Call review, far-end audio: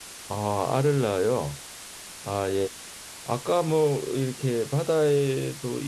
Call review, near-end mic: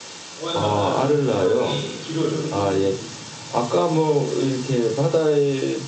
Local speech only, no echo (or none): 어, 예, 맞아요. 수명이 길어요, 예, 이 동물은.